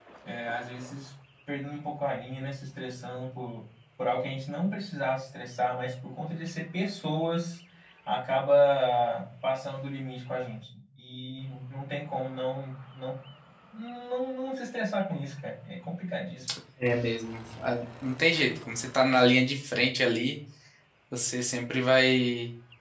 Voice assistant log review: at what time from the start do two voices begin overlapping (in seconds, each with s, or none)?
none